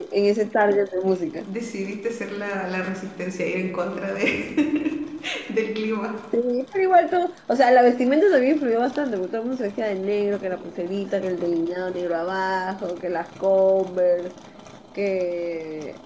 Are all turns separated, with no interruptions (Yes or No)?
Yes